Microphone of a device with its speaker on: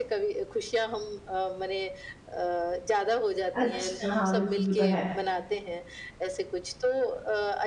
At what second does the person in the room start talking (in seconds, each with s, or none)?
3.5 s